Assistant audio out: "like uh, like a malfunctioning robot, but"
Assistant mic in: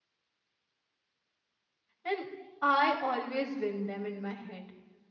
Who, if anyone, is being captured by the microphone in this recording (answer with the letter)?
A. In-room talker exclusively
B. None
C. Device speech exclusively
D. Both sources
A